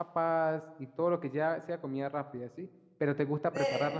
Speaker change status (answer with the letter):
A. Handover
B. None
B